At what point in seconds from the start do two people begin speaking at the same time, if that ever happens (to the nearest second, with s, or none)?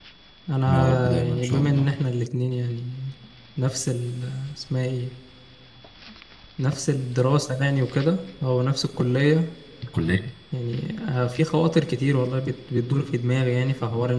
1 s